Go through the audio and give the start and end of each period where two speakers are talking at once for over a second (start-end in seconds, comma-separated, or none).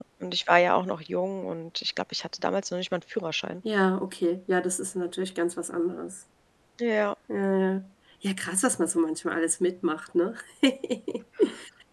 none